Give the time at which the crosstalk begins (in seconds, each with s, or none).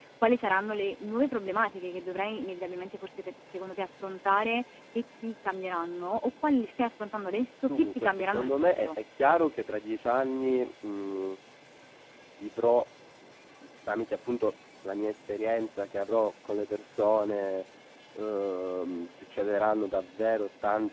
7.7 s